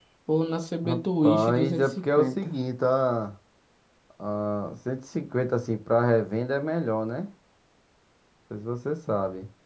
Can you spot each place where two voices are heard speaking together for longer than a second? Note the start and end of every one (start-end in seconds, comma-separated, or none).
0.8-2.5